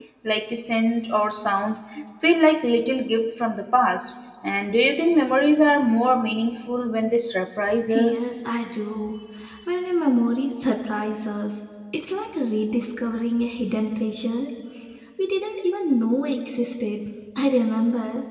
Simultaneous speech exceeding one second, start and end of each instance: none

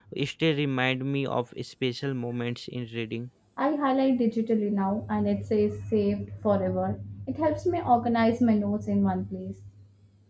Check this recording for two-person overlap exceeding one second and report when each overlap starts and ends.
none

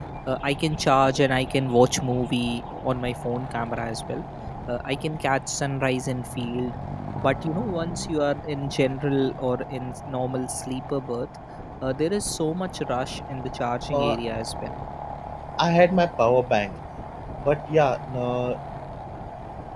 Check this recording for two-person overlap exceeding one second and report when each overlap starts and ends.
none

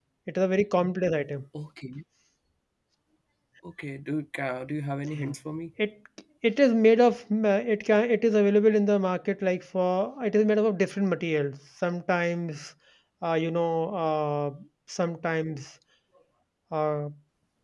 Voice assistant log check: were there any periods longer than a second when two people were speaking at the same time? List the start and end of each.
none

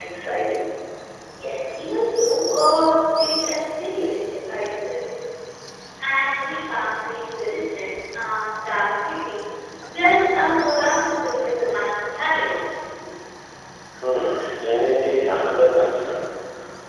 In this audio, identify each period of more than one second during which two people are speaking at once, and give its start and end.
none

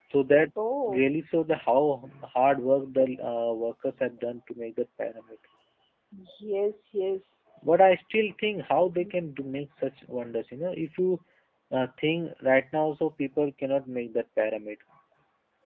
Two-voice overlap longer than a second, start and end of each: none

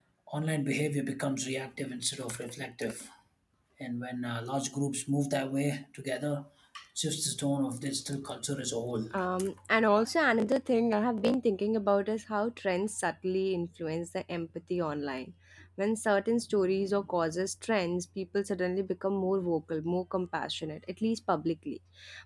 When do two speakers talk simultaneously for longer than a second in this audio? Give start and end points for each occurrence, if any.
none

